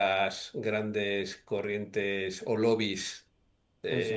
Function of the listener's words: listening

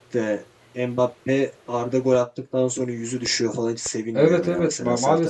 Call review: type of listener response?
taking over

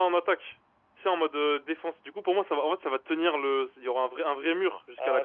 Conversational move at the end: taking over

